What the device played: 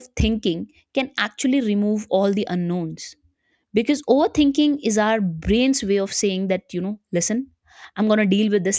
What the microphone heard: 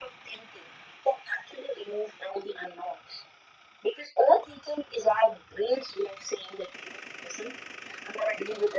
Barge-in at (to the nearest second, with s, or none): none